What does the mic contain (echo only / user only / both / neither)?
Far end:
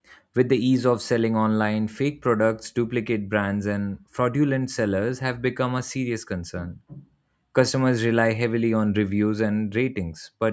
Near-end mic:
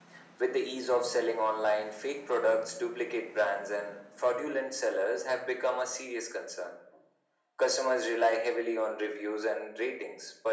echo only